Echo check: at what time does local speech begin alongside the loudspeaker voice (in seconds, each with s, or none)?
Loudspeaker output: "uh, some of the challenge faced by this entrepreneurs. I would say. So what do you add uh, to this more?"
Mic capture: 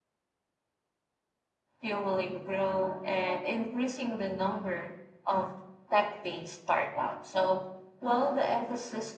1.8 s